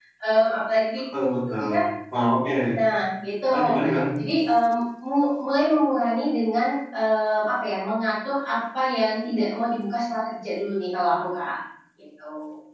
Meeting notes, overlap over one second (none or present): none